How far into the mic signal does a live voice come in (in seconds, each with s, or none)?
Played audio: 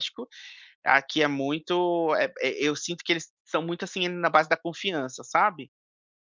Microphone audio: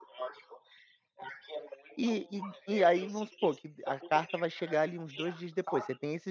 1.9 s